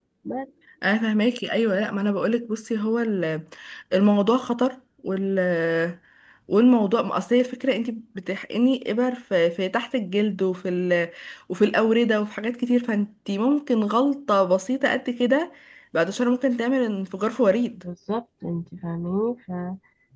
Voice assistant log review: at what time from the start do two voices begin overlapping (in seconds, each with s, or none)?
none